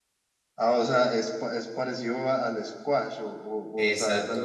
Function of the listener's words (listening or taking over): taking over